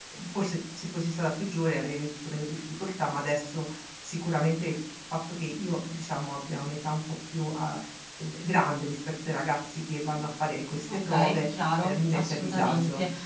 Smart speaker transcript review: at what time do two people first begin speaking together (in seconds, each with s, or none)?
10.9 s